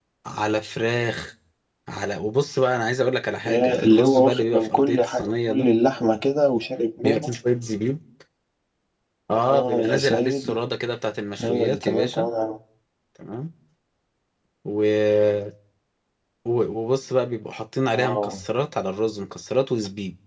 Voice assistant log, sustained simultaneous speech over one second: present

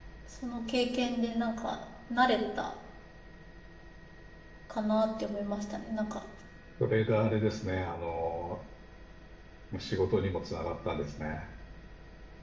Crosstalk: none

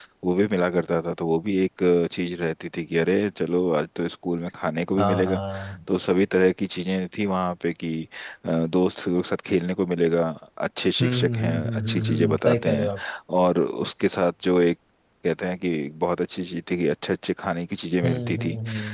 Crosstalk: present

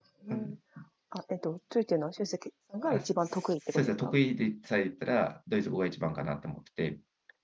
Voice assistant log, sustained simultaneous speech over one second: present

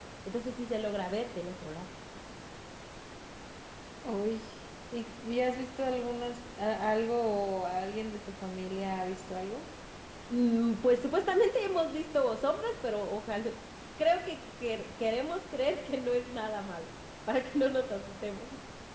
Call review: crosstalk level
none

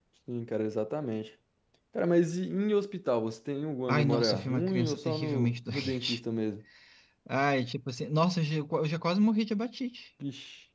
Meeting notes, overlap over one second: present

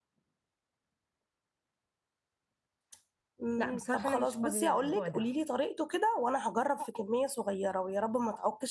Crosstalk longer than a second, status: present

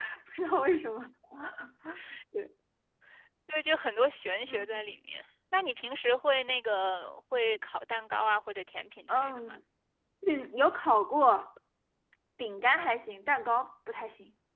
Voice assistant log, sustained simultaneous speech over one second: none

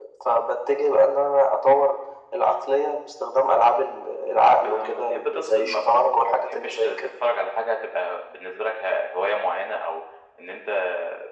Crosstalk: present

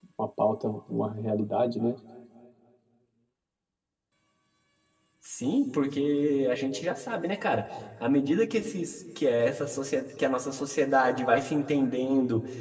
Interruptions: none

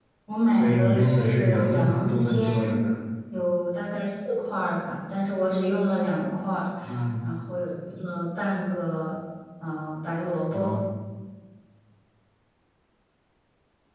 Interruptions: present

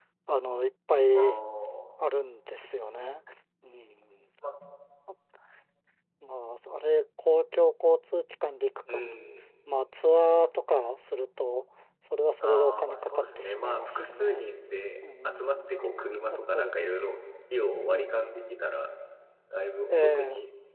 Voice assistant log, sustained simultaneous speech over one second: present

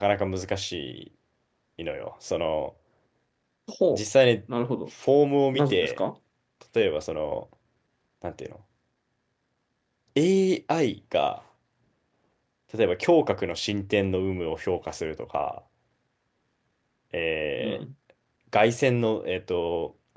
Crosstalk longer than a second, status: none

